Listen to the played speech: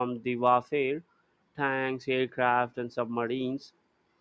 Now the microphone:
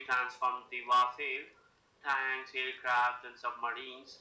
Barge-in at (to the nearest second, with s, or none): none